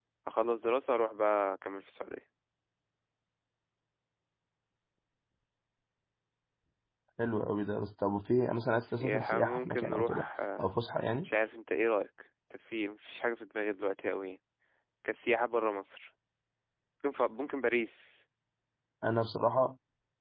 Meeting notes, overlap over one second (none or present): present